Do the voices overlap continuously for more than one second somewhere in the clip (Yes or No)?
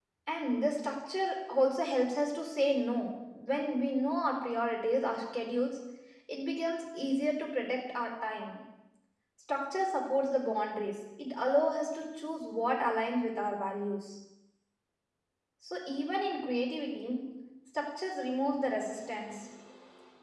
No